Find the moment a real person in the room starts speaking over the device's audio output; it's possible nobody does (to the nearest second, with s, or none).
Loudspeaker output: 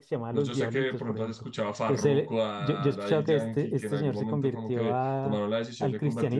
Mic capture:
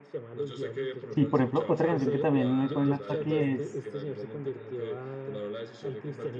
1 s